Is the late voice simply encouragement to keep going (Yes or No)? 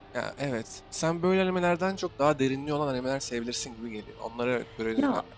No